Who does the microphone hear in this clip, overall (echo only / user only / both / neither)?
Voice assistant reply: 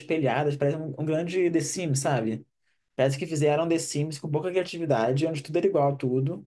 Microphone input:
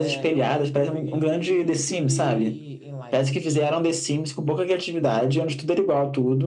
both